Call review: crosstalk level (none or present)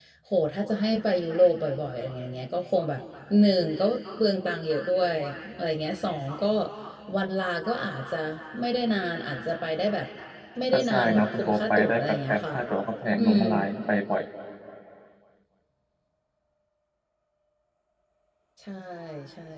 present